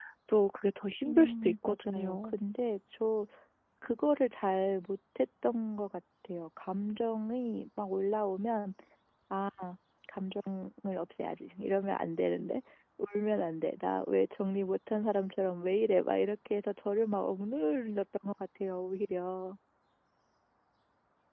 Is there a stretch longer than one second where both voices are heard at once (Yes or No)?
Yes